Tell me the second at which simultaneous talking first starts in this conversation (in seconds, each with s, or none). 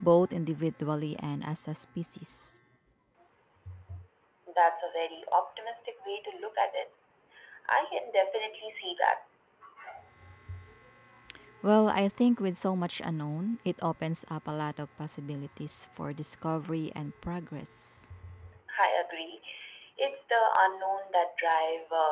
none